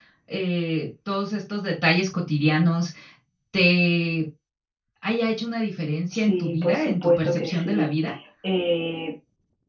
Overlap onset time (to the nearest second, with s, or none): 6 s